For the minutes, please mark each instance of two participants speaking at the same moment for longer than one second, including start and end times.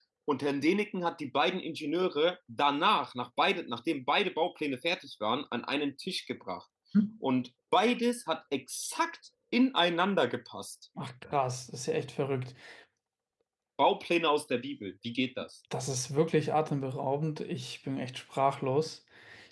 none

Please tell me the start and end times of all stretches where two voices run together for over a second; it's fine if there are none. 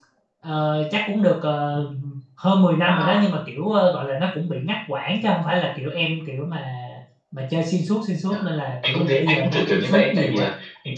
8.9-10.5

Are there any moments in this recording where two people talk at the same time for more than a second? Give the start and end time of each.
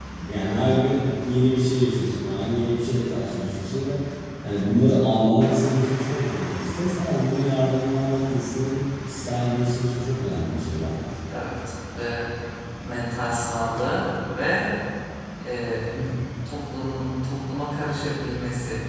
none

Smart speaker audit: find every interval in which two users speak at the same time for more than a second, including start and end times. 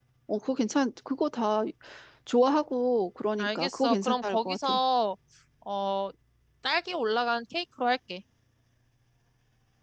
3.4-4.8

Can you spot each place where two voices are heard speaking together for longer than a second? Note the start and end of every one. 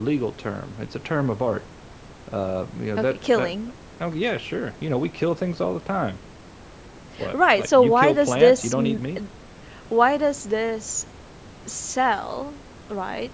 7.3-8.7

